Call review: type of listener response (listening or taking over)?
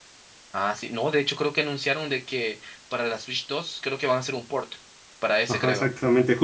taking over